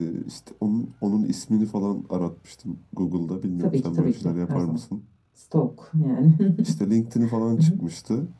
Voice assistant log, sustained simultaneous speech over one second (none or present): present